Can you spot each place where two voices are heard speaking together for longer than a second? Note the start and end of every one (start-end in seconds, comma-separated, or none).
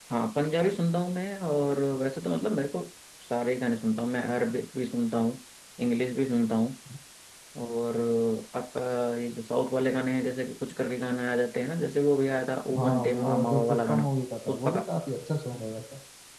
12.8-14.0